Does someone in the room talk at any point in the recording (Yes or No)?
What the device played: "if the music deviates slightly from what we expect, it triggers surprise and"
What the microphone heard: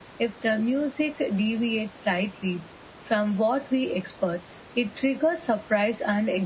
No